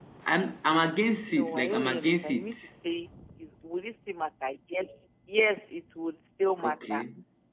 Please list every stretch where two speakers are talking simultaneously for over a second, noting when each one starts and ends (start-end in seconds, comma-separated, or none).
1.3-2.5